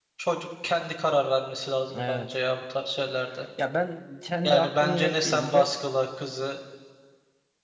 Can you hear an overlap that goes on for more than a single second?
Yes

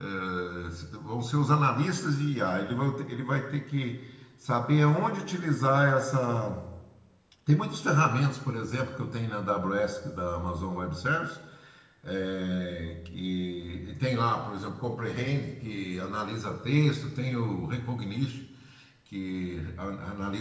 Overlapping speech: No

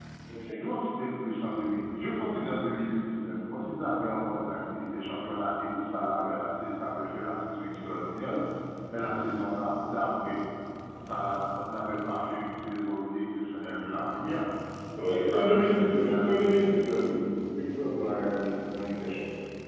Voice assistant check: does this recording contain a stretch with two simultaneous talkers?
Yes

